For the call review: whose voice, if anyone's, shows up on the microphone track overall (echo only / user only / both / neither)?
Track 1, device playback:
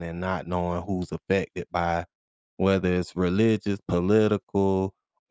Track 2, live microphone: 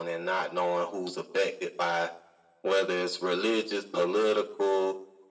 echo only